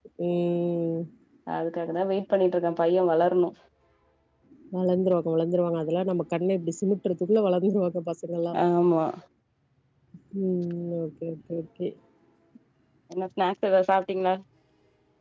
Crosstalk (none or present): none